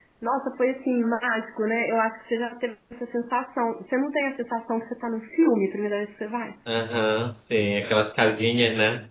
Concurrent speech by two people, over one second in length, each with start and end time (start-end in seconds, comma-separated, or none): none